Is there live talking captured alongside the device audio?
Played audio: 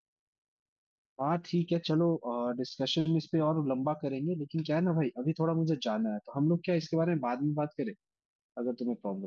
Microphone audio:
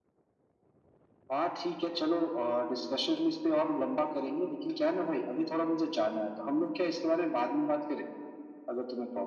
No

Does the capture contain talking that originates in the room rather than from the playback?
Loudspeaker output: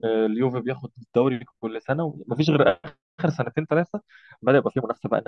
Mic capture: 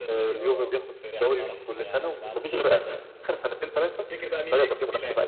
Yes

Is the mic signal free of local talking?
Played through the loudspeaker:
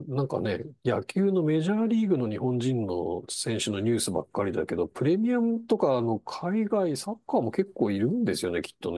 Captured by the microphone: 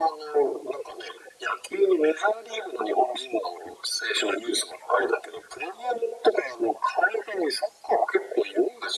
Yes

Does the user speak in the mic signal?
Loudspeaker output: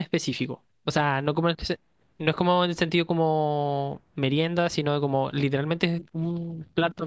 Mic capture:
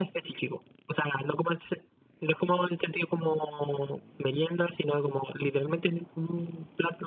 No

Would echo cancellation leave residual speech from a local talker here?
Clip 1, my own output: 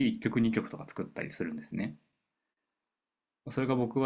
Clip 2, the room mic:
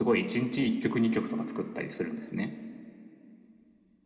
No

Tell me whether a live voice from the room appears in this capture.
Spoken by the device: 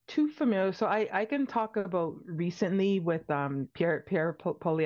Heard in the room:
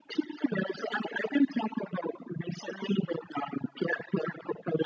No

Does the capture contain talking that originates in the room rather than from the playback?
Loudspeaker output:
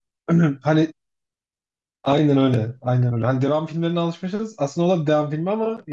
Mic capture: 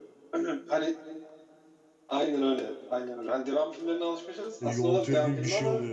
Yes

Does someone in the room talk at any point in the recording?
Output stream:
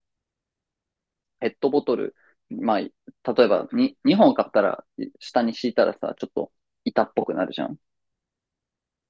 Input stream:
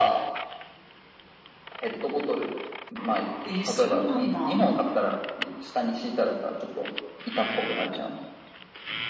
Yes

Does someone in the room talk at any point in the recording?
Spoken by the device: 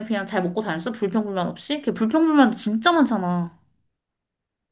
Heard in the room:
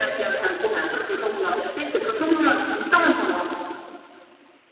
No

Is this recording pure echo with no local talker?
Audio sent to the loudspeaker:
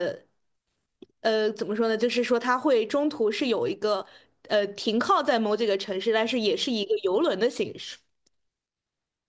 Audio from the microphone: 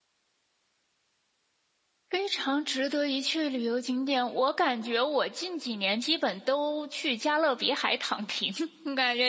No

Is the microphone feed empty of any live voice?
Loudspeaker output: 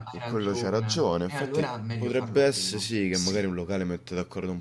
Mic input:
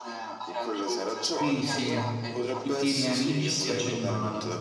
No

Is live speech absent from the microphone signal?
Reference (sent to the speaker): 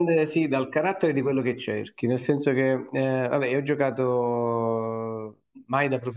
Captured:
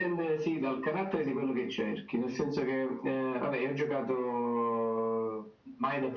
Yes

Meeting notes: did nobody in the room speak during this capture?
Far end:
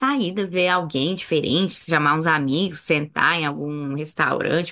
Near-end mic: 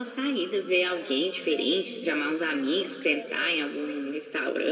No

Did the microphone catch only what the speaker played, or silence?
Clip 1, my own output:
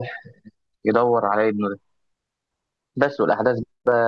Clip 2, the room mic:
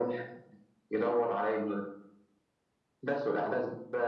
Yes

